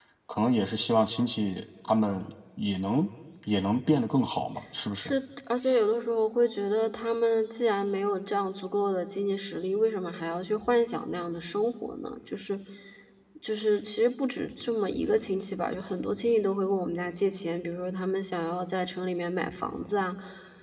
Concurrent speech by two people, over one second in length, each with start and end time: none

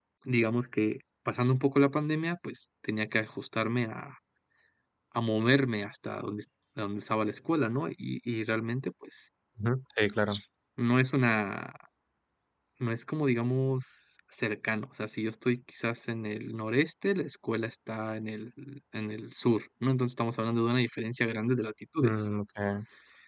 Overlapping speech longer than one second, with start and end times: none

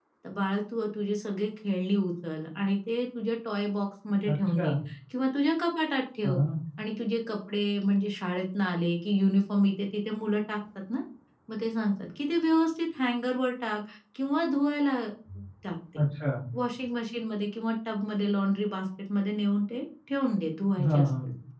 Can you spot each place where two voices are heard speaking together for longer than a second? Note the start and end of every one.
none

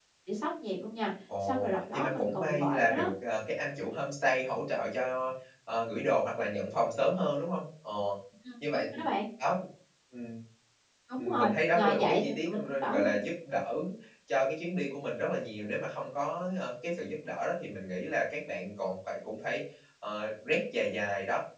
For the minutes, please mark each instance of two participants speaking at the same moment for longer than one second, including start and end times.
1.4-3.1, 11.2-13.1

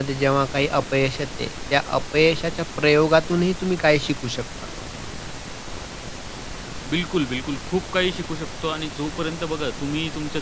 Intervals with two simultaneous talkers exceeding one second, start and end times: none

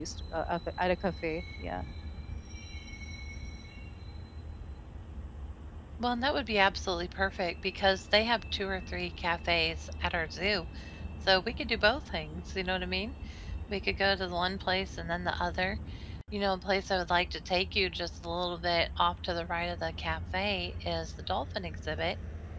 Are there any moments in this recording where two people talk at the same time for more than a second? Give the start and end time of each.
none

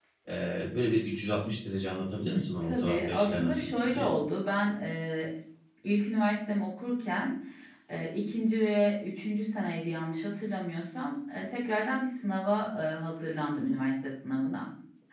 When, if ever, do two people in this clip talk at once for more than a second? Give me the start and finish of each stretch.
2.6-4.1

